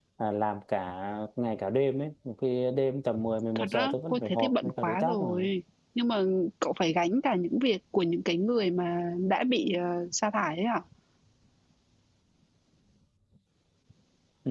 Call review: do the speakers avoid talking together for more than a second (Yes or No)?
No